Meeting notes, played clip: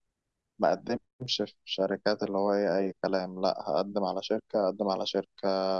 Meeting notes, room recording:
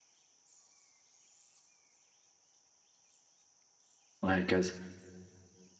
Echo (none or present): none